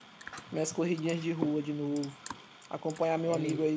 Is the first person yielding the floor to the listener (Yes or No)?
No